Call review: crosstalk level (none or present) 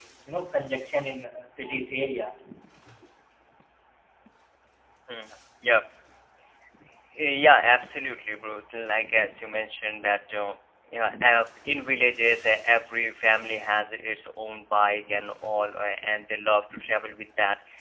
none